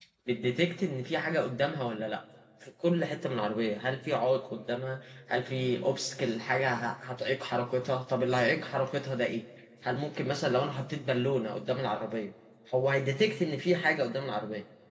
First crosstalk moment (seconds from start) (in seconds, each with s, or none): none